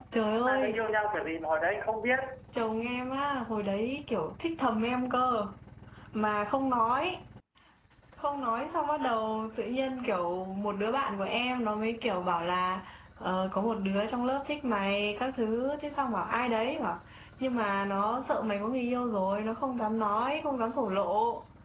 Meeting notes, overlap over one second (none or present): none